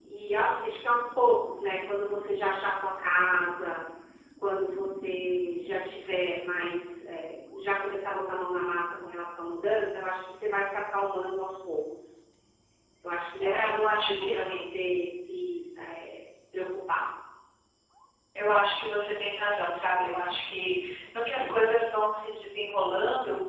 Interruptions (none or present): present